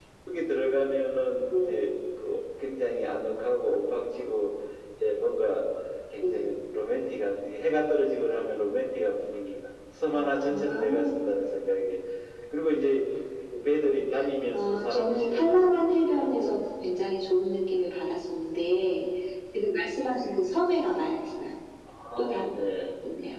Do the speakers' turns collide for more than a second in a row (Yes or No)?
Yes